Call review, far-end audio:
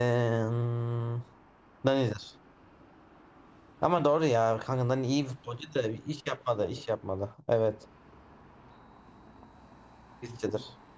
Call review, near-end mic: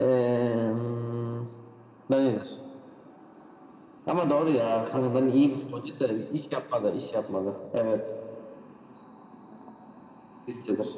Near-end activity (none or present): none